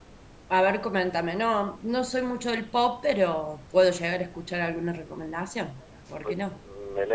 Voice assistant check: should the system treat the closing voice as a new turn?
Yes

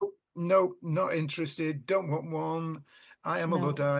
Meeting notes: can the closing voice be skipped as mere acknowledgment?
Yes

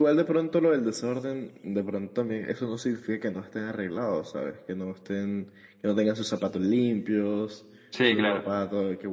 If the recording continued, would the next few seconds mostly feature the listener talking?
No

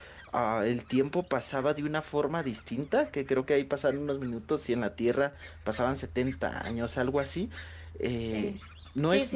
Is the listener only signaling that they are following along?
No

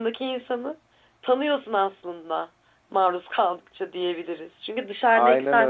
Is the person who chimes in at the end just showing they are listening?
Yes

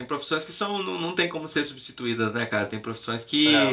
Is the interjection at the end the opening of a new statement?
No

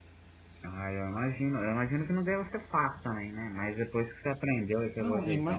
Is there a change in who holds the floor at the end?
Yes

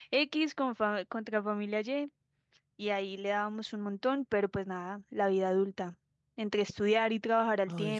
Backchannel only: Yes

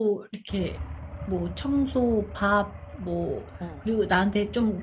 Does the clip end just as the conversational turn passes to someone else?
No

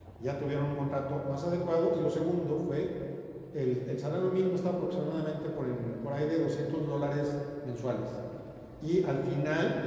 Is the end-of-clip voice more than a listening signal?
No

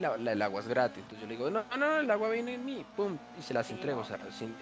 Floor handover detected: No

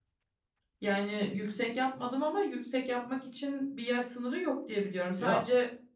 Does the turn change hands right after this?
No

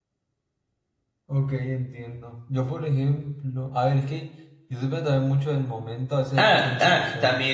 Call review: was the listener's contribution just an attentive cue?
No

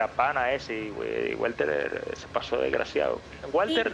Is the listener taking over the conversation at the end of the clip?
No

